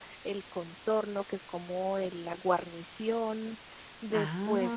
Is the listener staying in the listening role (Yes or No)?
Yes